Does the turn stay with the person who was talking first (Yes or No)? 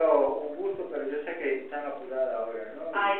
No